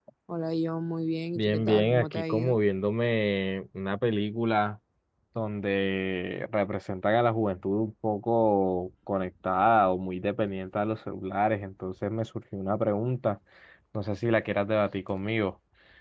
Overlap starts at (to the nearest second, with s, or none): 1 s